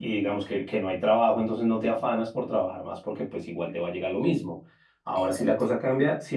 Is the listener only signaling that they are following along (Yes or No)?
Yes